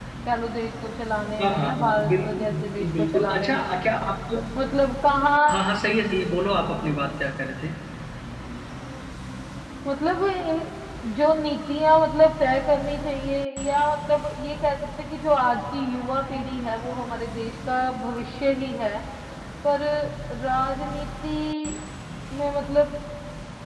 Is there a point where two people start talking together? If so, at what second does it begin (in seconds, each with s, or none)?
1.4 s